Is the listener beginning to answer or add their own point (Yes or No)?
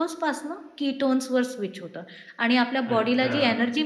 No